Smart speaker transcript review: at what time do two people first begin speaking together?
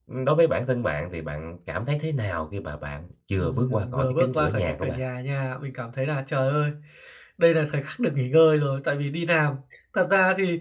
3 s

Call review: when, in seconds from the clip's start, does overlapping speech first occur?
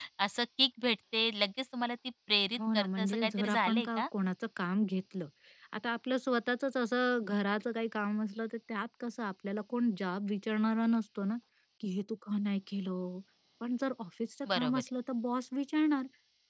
3 s

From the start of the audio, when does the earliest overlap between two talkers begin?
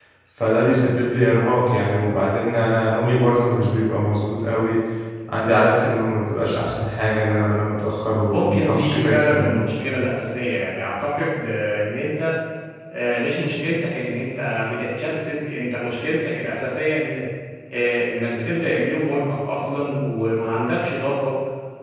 8 s

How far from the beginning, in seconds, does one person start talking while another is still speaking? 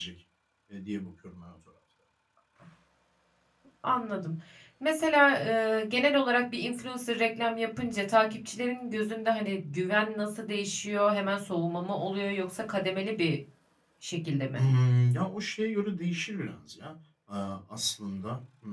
none

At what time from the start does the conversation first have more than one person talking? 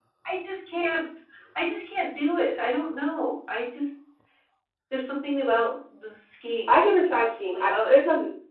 7 s

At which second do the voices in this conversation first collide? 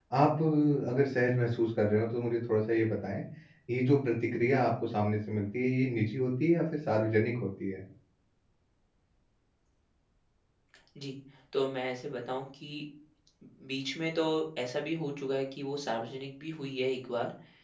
none

